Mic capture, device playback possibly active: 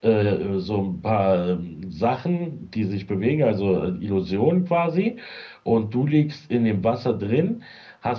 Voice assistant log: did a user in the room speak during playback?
Yes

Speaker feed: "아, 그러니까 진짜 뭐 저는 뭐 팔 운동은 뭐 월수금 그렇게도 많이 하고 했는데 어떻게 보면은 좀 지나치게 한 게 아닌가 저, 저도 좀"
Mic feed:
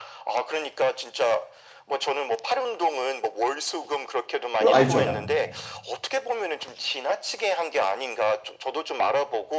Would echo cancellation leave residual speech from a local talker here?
Yes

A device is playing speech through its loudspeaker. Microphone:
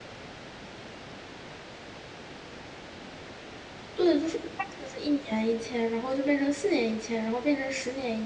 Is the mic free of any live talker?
No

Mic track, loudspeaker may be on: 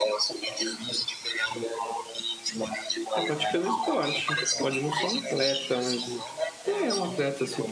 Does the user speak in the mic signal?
Yes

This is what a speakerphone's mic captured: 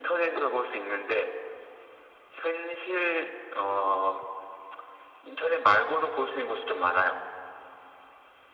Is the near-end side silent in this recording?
Yes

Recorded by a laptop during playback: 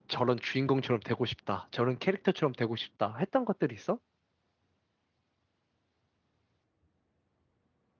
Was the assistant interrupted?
Yes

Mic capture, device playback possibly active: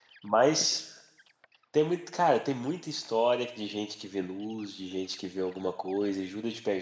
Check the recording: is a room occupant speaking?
Yes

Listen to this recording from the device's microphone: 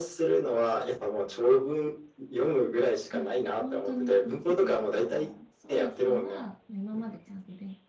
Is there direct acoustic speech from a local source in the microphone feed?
Yes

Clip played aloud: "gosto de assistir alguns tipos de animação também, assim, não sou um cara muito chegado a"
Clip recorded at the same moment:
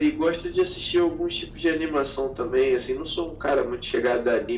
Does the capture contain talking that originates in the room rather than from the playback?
No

